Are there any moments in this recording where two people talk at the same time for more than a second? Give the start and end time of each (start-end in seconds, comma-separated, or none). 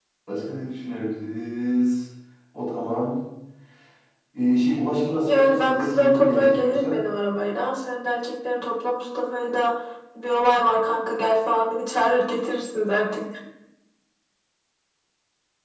5.2-7.0